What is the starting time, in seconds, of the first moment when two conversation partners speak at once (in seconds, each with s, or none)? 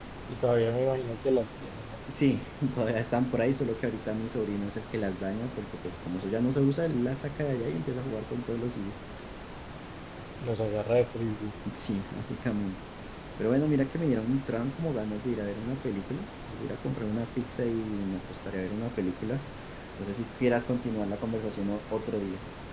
none